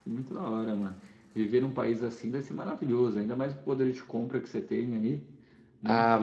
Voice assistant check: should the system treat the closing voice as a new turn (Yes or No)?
Yes